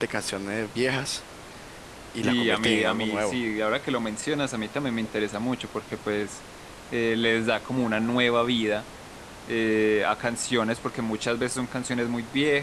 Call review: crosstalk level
present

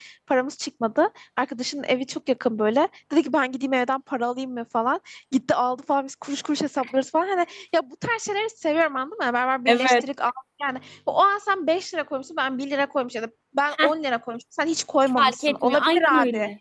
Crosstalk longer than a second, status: present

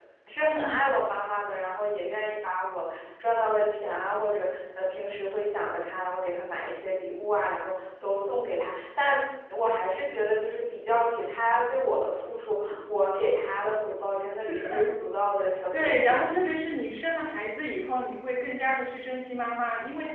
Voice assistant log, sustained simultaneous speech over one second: none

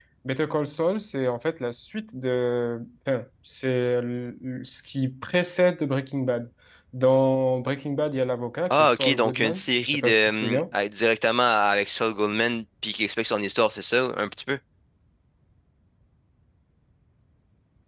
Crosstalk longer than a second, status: present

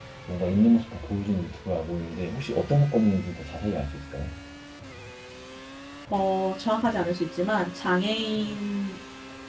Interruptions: none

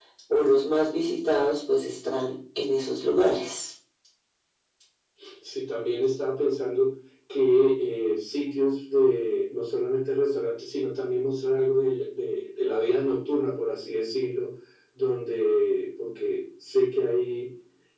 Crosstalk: none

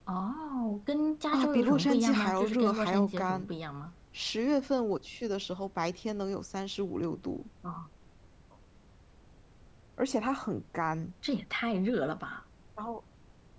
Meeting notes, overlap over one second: present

